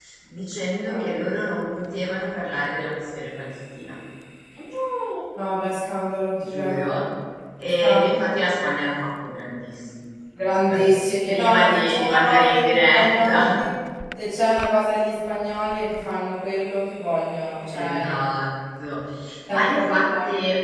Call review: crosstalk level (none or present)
present